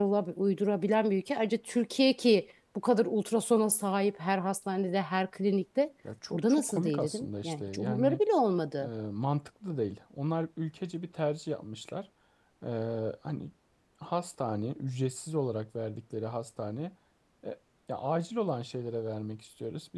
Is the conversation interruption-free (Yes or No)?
No